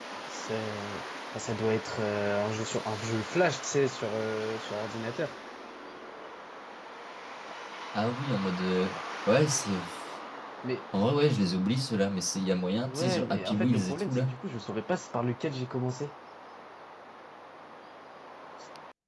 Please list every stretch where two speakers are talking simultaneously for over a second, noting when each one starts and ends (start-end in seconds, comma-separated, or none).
12.8-14.3